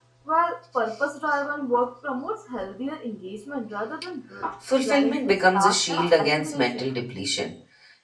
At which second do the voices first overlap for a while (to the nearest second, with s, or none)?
5 s